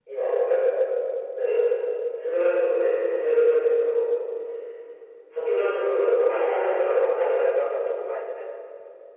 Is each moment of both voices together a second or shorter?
No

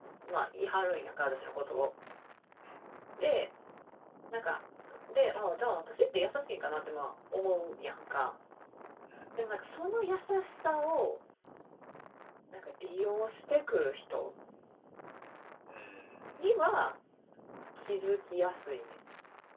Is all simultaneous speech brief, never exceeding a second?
Yes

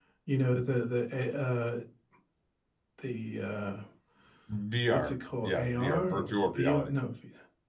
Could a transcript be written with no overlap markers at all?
No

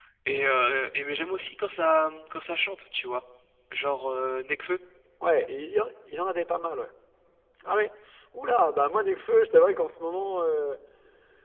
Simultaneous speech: No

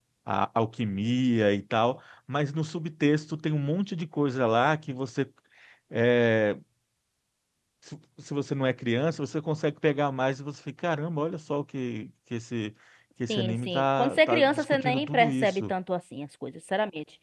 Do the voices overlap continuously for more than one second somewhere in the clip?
Yes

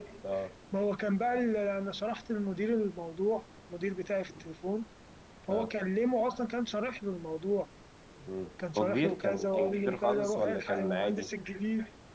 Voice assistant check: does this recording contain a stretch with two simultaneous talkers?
Yes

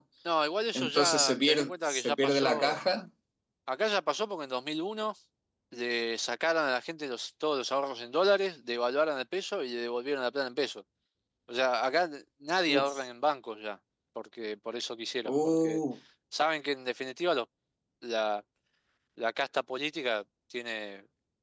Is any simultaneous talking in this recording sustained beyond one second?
Yes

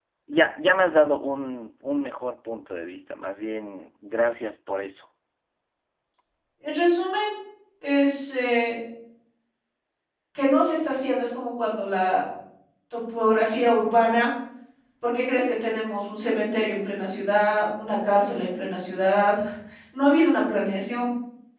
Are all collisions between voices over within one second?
Yes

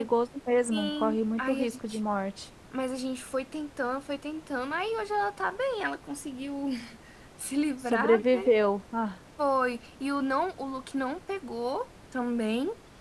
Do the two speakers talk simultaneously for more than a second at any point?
Yes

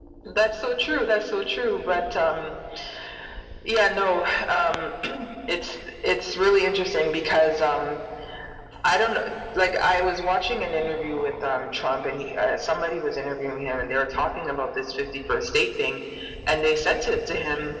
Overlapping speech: No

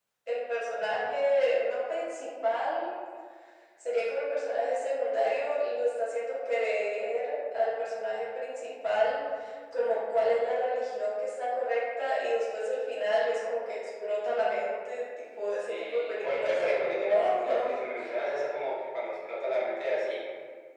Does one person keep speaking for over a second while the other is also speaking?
Yes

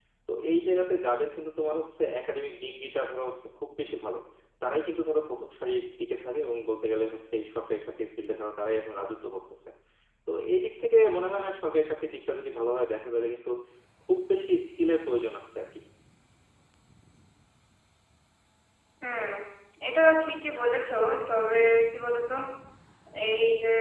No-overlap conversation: Yes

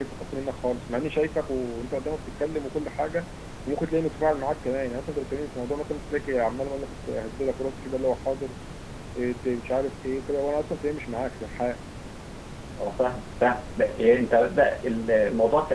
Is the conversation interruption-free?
Yes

